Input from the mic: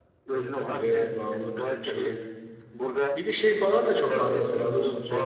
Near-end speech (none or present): present